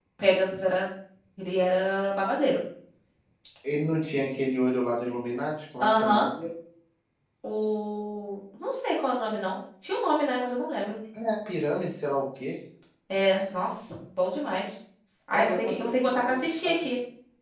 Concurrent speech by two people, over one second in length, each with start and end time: 15.3-16.9

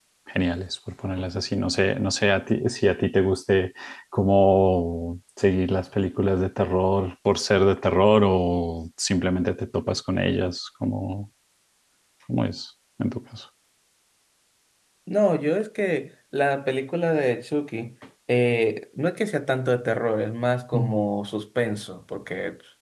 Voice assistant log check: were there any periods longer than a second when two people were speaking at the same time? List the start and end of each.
none

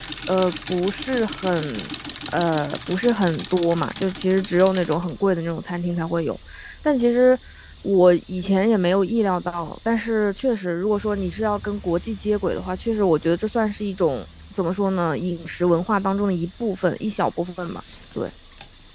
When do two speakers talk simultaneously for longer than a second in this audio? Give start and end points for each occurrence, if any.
none

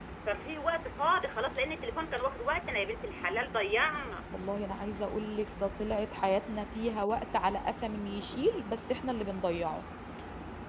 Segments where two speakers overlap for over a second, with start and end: none

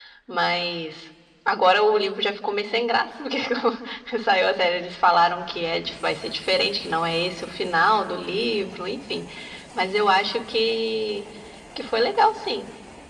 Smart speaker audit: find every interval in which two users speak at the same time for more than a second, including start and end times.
none

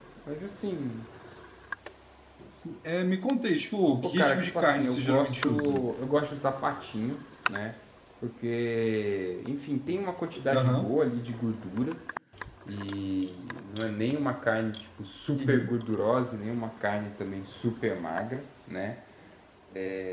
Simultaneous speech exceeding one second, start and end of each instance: 4.0-5.8

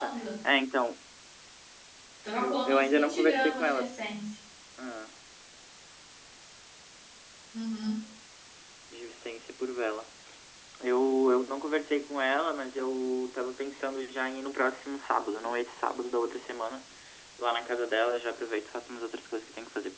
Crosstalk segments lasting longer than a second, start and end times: 2.4-3.9

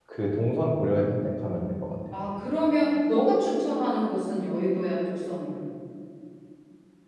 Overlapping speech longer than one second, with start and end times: none

